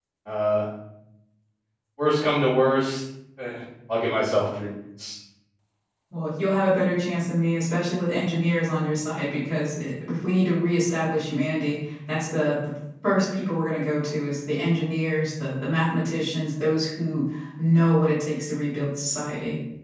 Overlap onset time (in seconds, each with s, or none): none